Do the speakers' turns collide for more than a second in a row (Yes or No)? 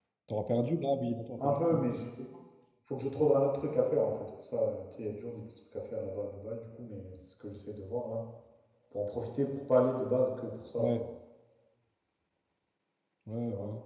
No